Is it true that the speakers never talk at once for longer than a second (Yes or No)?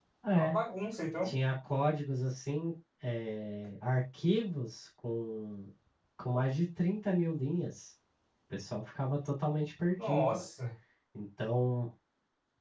Yes